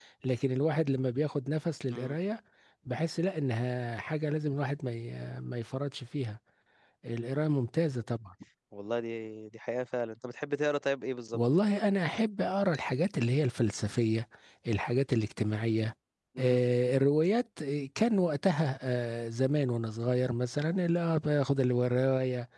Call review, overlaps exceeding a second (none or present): none